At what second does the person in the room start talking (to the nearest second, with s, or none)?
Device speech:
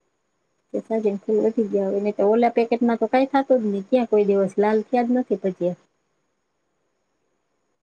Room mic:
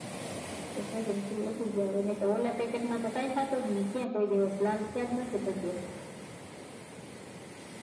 none